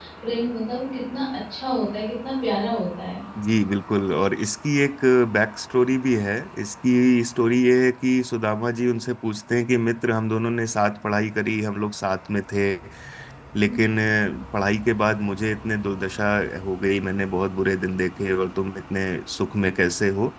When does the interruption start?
none

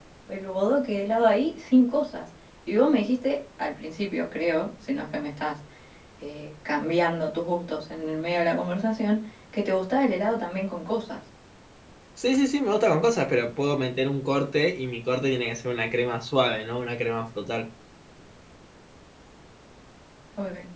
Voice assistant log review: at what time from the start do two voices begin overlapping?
none

